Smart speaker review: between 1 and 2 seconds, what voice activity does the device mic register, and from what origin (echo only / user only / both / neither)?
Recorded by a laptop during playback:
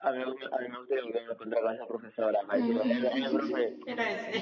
echo only